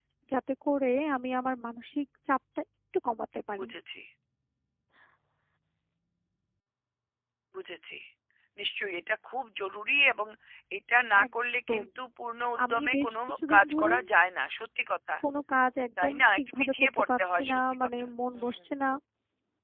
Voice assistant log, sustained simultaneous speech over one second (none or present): present